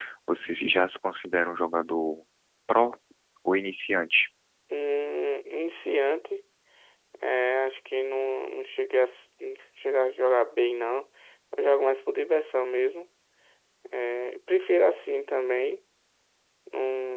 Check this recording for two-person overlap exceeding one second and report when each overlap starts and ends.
none

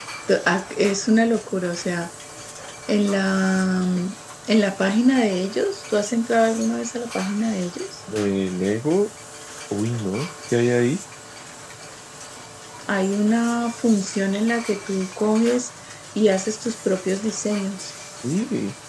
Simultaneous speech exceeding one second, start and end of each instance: none

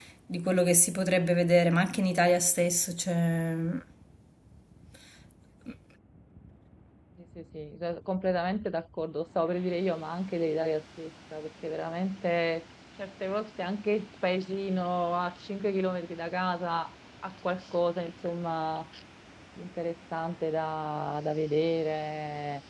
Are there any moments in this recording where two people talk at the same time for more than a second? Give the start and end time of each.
none

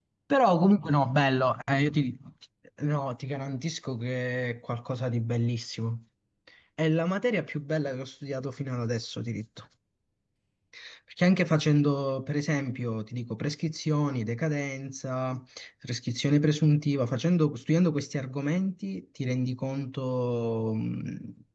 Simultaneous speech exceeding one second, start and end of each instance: none

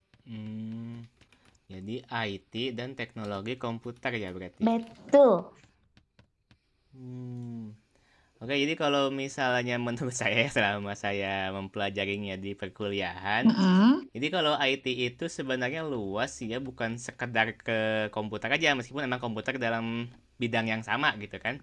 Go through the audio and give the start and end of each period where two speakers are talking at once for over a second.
none

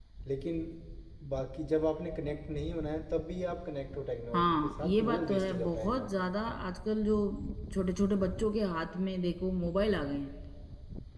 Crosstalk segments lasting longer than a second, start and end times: 4.3-6.3

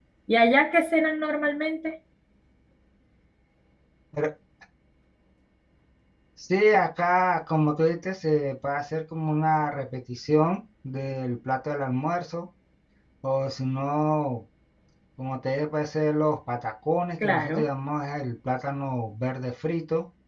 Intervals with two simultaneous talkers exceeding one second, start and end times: none

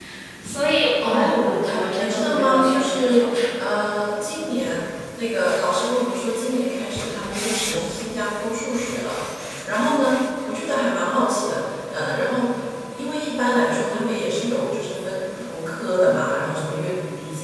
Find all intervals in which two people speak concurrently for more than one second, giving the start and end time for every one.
1.0-3.4

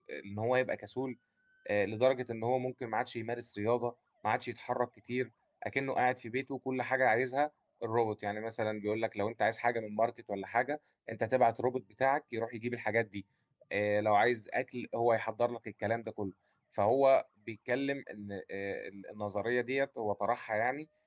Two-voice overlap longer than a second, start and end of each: none

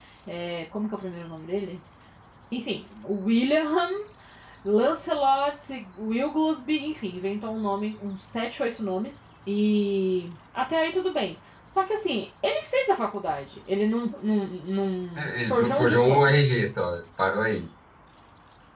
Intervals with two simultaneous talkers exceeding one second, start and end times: 15.2-16.4

